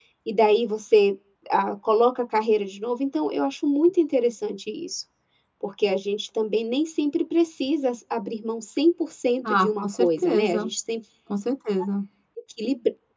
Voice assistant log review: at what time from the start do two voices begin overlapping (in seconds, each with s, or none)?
9.4 s